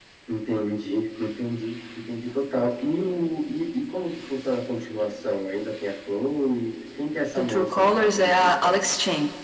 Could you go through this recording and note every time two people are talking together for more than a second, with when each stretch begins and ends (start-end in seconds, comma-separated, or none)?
7.4-8.9